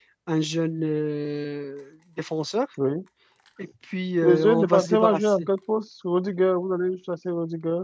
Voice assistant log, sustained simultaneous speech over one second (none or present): present